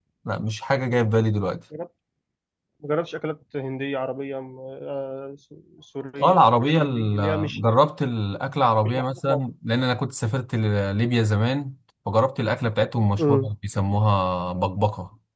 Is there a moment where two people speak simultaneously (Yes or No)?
Yes